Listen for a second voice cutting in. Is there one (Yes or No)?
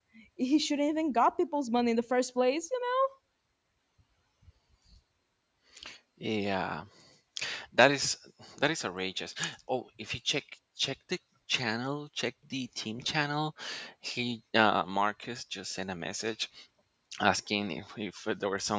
No